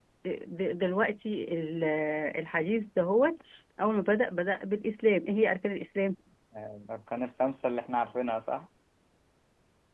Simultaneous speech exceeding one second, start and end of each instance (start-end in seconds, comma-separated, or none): none